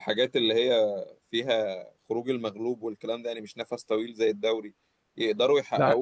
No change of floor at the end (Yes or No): Yes